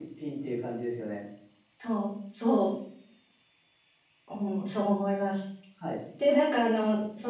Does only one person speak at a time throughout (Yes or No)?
Yes